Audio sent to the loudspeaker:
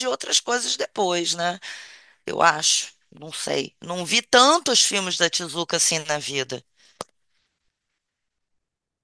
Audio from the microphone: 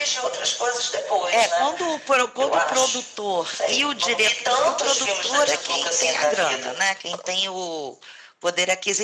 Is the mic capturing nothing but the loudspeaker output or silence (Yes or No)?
No